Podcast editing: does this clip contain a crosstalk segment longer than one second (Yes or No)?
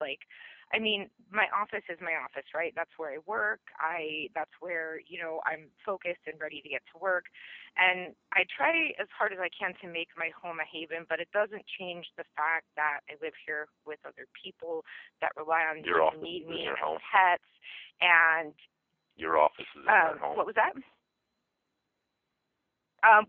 Yes